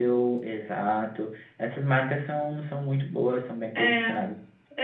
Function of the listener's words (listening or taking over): taking over